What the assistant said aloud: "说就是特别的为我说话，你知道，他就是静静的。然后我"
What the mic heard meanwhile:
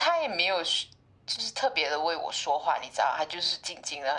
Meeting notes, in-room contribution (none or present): none